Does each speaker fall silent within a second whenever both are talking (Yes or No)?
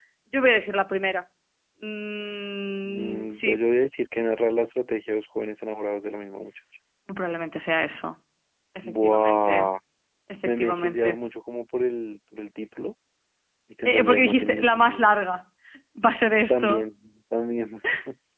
No